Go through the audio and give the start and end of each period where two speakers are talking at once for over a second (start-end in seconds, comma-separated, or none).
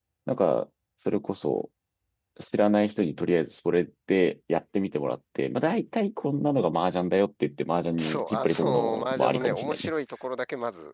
8.0-9.9